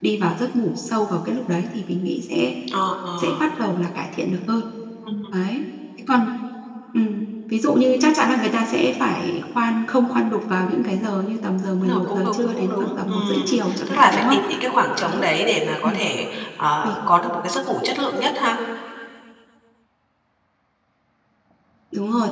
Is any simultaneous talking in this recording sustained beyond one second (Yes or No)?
Yes